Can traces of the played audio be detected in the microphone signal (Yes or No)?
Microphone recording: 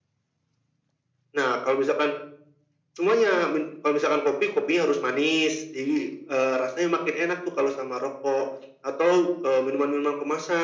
Yes